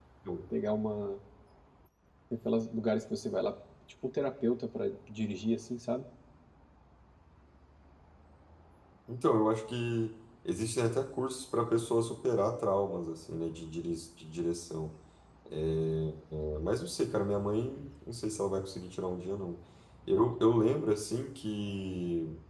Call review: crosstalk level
none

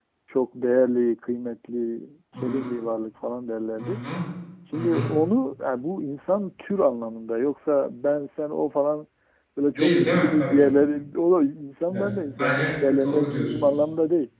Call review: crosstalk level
present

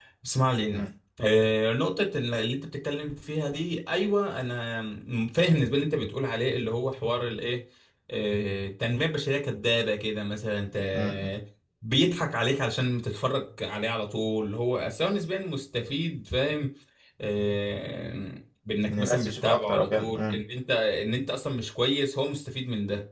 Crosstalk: present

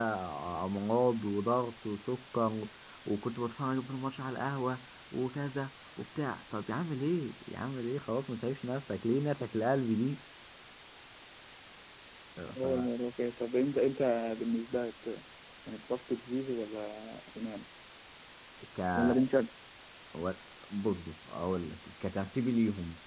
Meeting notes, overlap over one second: none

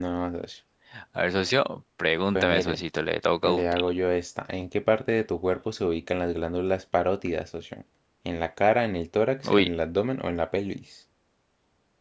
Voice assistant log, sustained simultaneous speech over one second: none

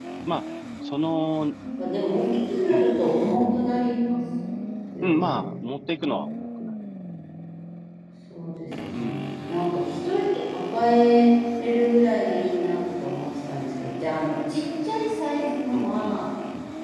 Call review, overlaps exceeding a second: none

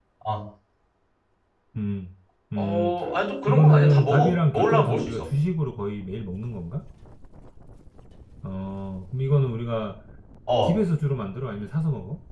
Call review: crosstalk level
present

